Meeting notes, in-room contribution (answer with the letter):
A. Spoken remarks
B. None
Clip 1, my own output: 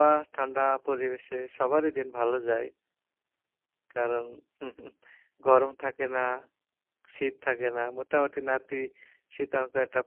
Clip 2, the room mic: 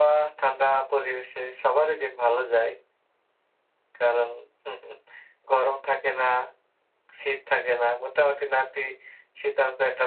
B